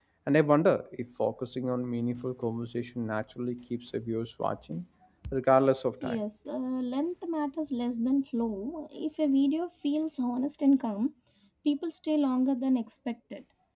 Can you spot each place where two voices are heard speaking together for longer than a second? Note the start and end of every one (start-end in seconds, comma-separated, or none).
none